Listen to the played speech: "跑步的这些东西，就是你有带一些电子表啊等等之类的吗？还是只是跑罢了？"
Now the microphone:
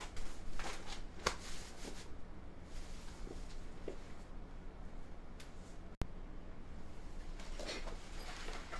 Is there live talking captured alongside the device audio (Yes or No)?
No